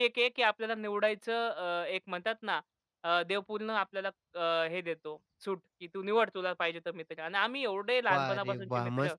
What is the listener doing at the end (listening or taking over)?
taking over